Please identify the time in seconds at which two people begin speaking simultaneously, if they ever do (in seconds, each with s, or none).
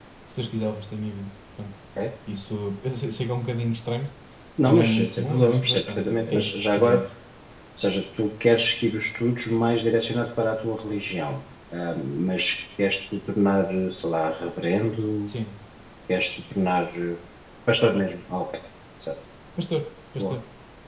4.7 s